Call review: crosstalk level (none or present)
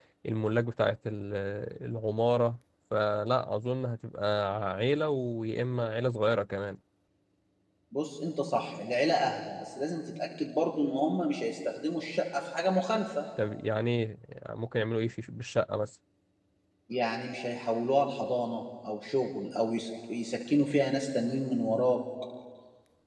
none